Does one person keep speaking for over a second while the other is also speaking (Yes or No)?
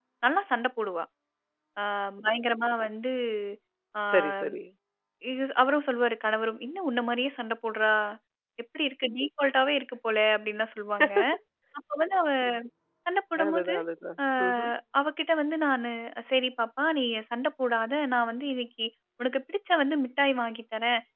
No